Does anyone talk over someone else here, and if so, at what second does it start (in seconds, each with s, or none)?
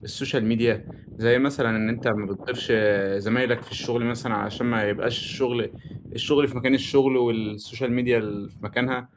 none